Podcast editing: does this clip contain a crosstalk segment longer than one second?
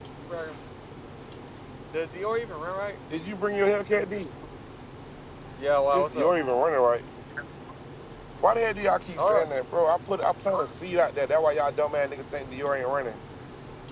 No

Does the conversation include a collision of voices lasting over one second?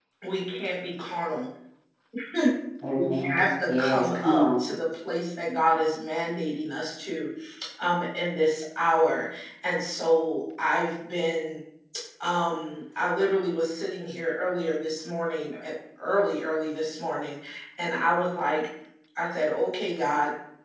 Yes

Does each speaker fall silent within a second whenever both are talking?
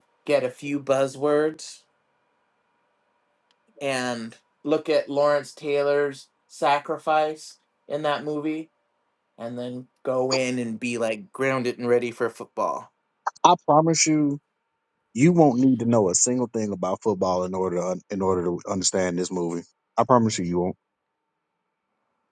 Yes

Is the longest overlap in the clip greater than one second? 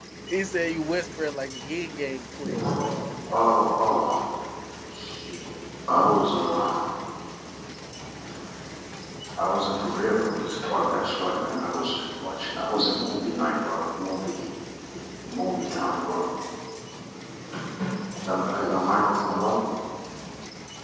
No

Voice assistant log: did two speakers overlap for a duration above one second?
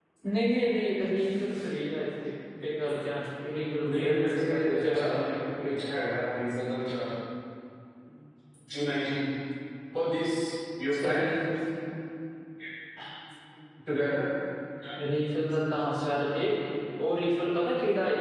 Yes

